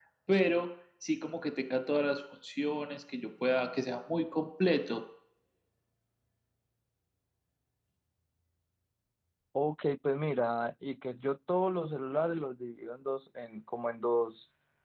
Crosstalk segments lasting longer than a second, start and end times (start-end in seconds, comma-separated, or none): none